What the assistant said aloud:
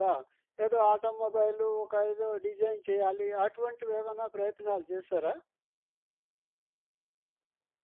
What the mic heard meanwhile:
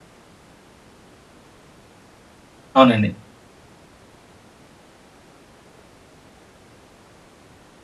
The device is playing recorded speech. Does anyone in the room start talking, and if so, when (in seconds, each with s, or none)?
2.8 s